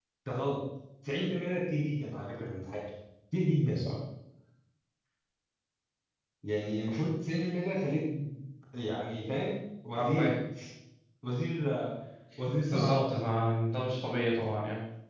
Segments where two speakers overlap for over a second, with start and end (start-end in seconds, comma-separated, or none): none